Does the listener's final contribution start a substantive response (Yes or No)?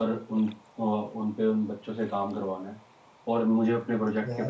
No